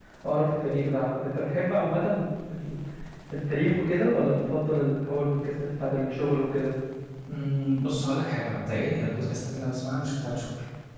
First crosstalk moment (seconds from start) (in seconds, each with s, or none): none